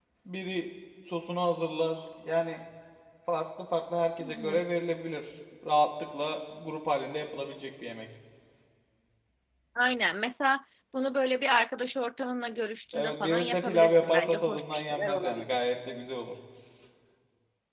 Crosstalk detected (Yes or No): Yes